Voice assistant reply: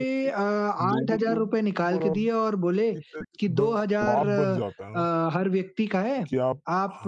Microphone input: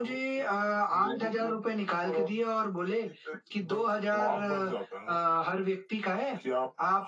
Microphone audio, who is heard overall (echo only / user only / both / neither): echo only